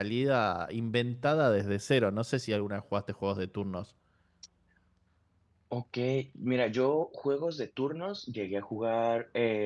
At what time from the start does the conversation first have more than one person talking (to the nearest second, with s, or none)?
none